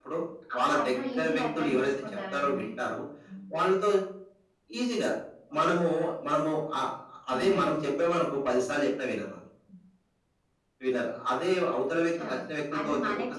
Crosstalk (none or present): present